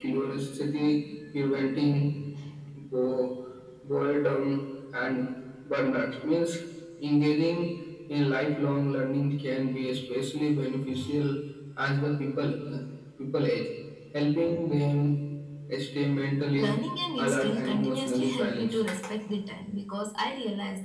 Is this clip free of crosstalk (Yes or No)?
No